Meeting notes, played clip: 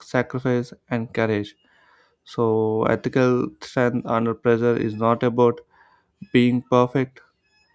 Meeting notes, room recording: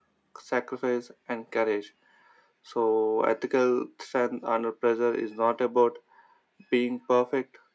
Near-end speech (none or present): none